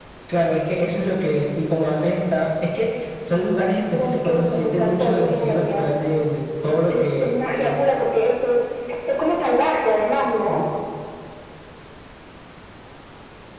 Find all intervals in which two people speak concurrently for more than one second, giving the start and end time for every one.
3.9-5.9, 6.7-7.9

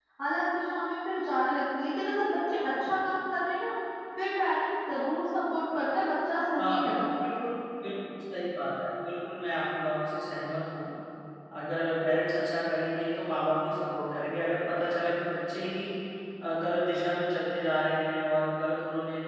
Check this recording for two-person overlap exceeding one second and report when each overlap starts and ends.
none

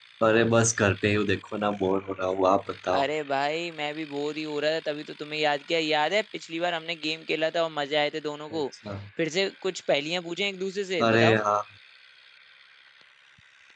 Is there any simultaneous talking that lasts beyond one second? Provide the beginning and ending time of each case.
none

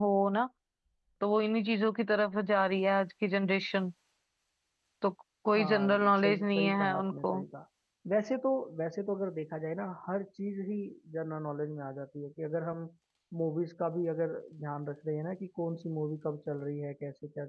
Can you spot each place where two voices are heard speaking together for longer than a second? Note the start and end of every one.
5.5-7.4

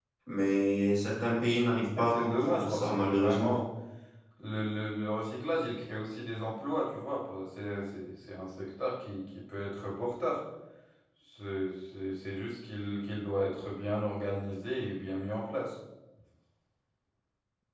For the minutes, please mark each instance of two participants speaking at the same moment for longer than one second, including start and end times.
2.0-3.6

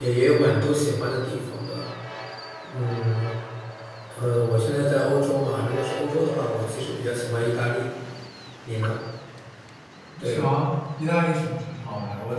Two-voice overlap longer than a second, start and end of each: none

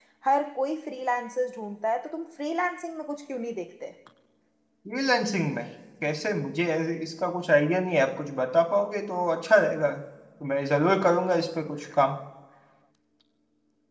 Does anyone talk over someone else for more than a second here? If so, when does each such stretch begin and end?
none

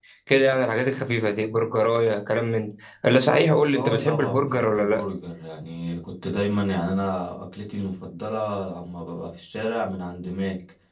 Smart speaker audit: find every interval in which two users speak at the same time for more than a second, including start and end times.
3.7-5.0

